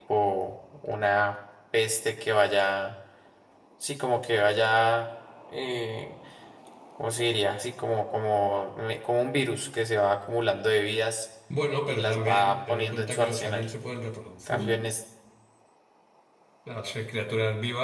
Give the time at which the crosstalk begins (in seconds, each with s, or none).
11.8 s